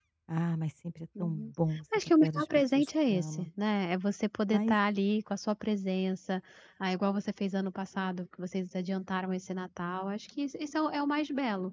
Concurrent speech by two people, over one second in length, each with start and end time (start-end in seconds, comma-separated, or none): 2.2-3.5